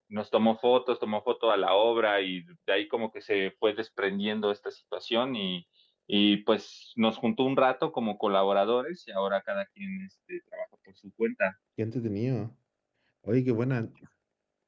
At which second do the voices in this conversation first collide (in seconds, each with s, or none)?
none